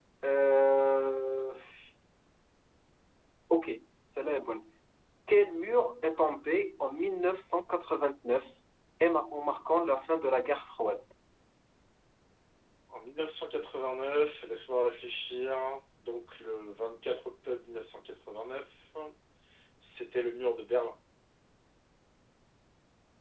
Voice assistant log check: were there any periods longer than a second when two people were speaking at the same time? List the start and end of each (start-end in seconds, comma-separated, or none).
none